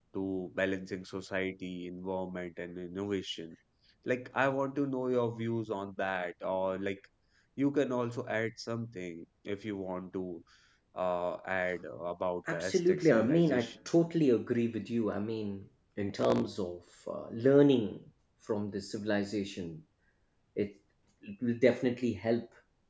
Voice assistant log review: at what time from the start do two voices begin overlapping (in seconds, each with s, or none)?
12.5 s